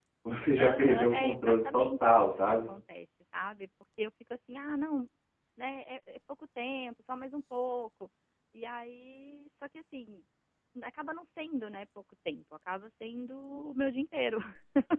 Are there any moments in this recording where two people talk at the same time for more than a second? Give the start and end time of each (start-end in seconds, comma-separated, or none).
0.6-2.7